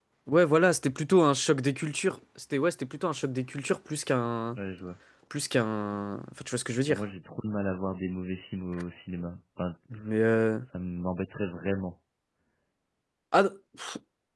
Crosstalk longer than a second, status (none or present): none